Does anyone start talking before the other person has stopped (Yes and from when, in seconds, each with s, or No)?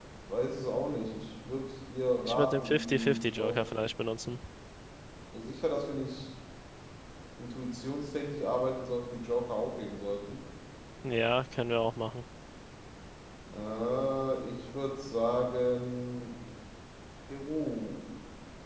Yes, from 2.2 s